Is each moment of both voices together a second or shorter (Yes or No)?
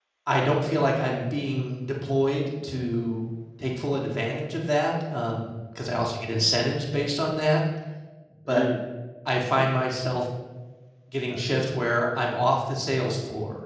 Yes